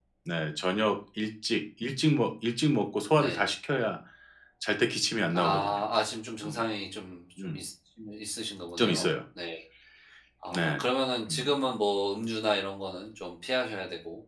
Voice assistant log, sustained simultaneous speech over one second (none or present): none